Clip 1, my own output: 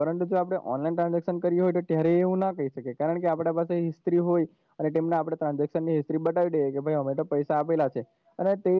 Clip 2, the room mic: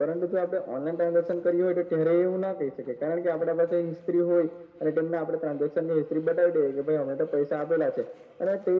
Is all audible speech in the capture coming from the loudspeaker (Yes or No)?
Yes